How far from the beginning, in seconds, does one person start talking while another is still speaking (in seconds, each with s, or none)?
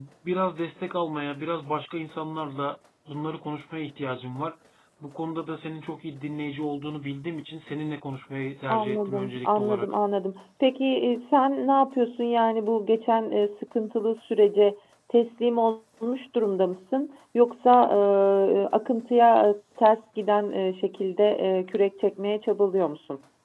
8.7 s